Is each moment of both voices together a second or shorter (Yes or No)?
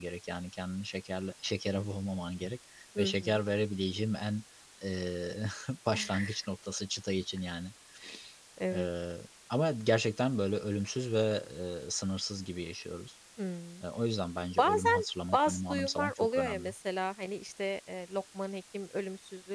No